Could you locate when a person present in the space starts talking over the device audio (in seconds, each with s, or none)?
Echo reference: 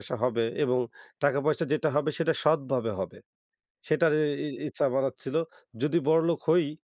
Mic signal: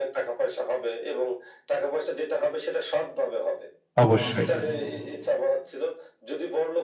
4.0 s